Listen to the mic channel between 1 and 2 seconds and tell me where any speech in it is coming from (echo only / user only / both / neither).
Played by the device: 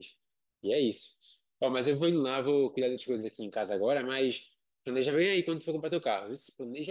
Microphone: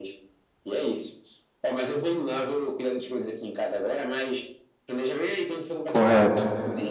echo only